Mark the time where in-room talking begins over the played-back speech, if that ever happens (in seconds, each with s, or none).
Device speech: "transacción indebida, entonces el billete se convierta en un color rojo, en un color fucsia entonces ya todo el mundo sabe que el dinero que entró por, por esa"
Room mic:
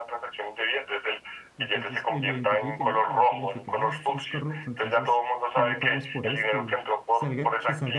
1.6 s